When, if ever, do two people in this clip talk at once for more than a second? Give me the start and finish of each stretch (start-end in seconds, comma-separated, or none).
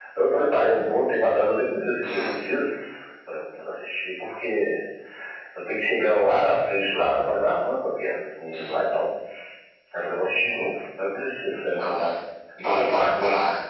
none